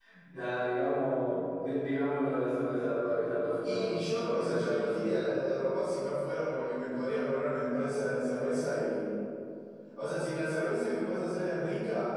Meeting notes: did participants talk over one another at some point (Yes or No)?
Yes